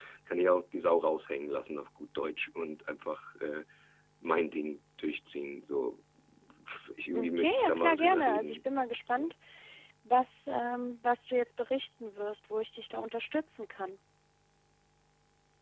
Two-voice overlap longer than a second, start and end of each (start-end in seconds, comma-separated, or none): 7.1-8.6